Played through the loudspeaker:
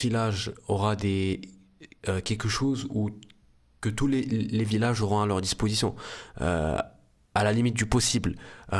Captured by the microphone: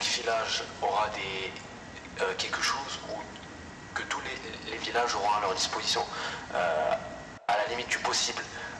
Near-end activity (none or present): none